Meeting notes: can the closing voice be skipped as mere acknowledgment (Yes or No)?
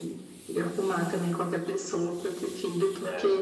No